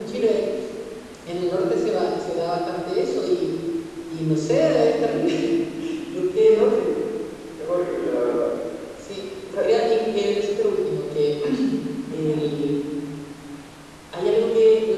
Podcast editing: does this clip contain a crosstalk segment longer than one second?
No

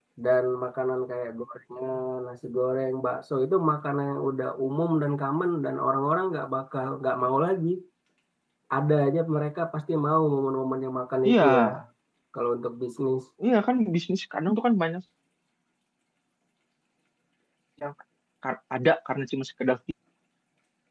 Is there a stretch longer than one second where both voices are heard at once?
No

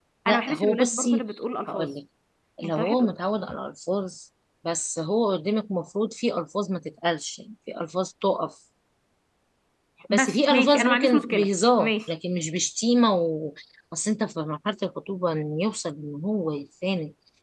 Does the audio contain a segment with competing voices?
Yes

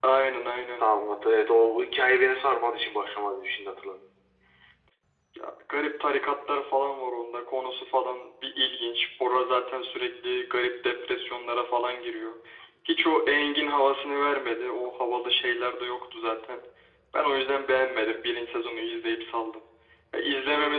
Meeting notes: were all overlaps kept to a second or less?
Yes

